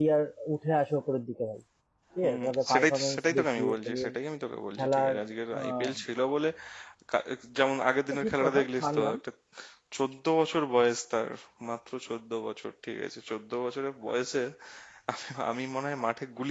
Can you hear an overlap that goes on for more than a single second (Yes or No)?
Yes